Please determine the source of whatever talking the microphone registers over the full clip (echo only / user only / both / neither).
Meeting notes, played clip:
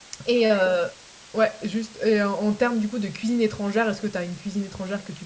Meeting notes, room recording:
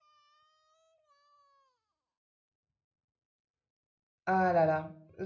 user only